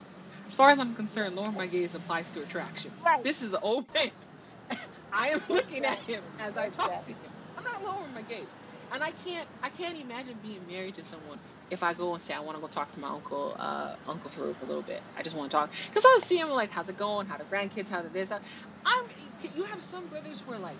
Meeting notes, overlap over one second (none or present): present